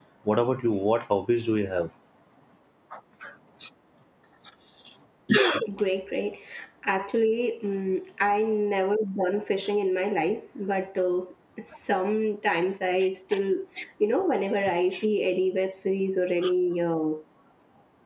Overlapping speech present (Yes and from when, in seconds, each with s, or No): No